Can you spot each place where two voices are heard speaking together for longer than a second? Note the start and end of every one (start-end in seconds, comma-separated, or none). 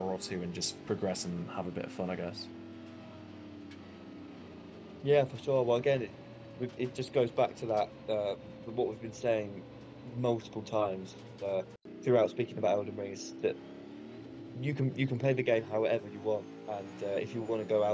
none